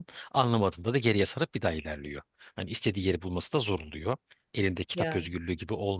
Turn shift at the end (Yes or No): No